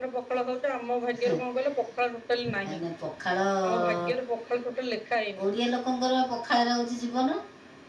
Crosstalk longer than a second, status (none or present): none